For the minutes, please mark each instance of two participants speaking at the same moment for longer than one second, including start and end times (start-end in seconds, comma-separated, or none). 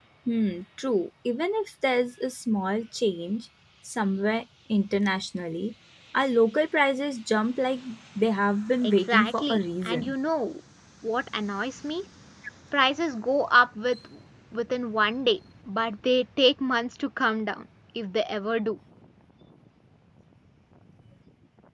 8.8-10.1